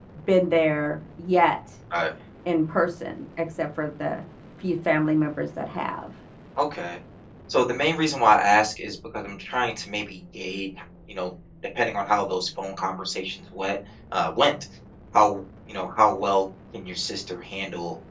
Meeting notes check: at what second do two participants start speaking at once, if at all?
none

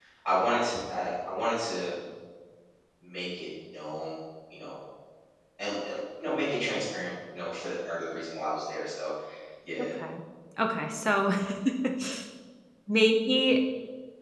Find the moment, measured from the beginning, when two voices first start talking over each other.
none

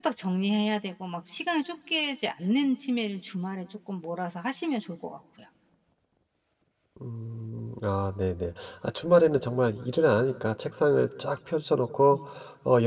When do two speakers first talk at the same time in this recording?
none

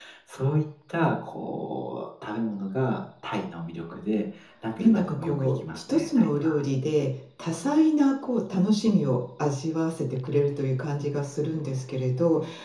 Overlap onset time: 4.8 s

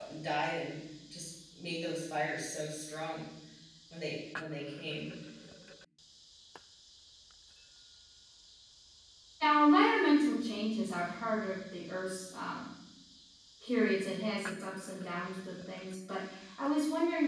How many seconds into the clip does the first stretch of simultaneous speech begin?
none

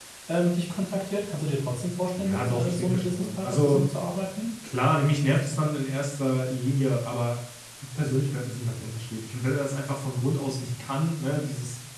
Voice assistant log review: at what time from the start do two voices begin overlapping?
2.2 s

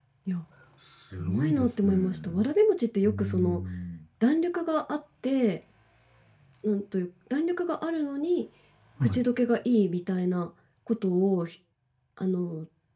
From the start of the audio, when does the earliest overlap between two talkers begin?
1.2 s

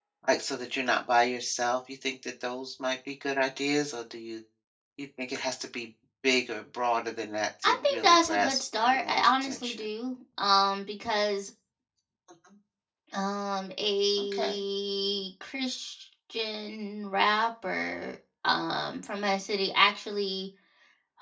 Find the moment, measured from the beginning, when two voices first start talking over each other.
7.7 s

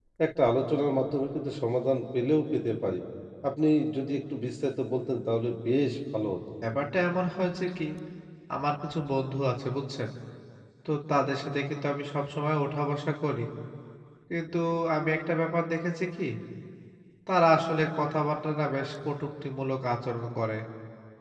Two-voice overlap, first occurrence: none

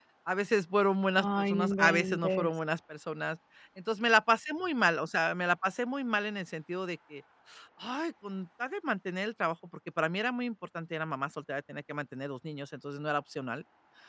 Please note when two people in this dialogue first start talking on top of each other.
1.2 s

